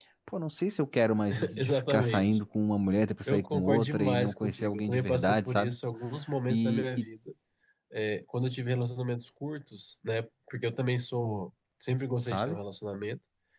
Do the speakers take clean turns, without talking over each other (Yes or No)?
No